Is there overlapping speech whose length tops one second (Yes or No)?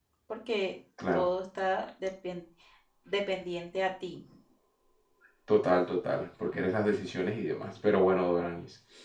No